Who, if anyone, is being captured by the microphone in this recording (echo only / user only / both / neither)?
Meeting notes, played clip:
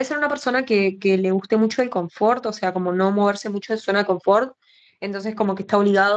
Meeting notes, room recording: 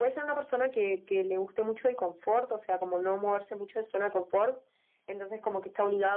echo only